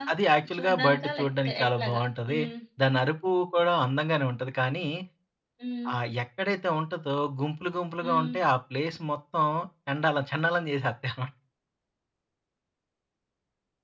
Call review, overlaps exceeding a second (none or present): present